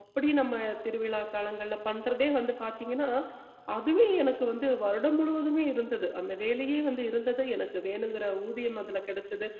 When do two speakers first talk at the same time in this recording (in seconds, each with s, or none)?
none